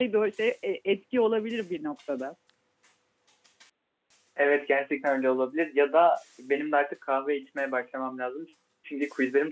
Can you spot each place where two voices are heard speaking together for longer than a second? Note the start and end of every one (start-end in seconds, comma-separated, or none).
none